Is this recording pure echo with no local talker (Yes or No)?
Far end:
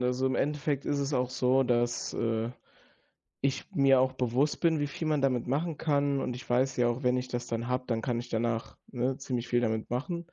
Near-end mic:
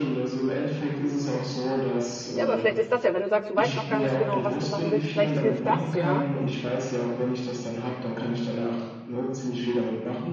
No